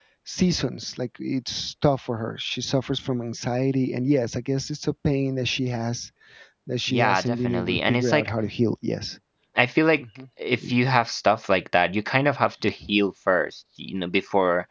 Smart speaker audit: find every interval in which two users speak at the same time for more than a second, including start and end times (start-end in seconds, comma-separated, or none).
6.9-8.3